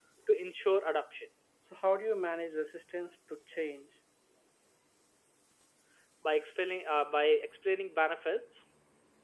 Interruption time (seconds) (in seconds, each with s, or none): none